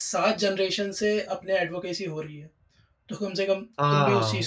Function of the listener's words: taking over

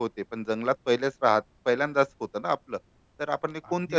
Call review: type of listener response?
listening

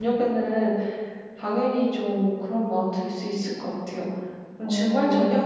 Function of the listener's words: listening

